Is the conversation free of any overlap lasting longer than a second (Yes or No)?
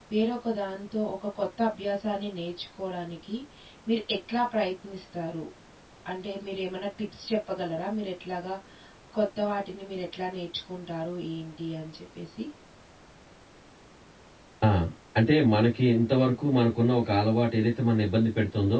Yes